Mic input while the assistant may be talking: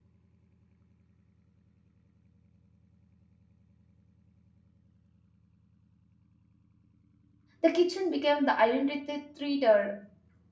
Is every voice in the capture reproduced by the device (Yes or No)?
No